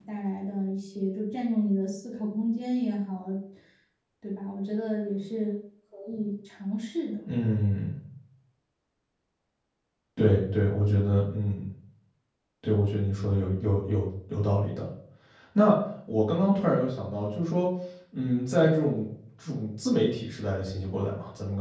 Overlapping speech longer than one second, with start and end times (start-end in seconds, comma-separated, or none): none